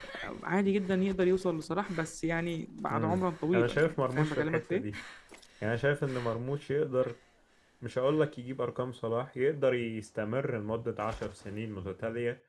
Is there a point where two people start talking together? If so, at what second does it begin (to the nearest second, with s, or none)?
3 s